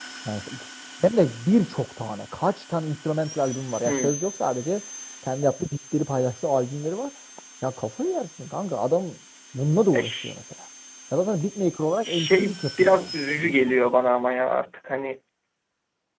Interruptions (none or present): present